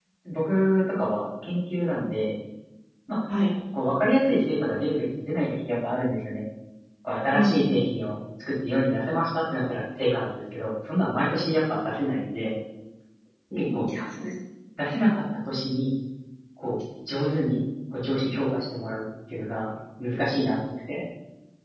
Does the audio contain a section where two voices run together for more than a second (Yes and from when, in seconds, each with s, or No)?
No